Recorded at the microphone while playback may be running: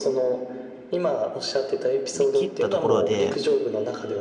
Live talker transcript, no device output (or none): り切ったところで、